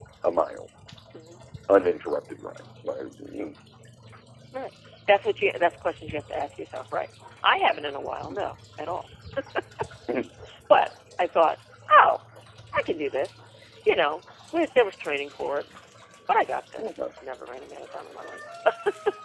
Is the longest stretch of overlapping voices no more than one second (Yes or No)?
Yes